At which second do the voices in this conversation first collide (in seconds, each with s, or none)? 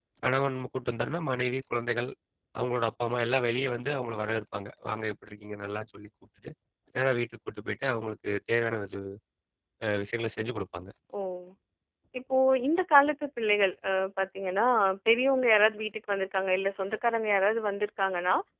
none